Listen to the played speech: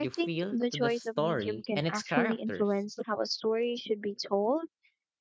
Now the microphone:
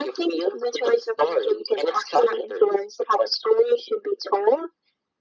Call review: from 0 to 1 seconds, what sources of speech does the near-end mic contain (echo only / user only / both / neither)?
echo only